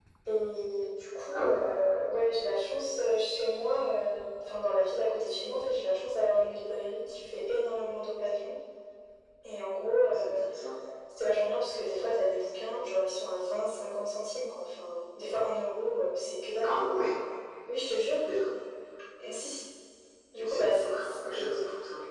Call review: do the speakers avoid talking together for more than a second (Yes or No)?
No